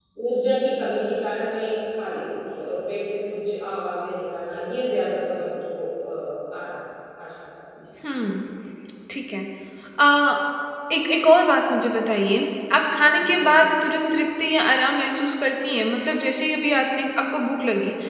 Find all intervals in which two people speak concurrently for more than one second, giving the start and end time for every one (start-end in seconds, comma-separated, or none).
none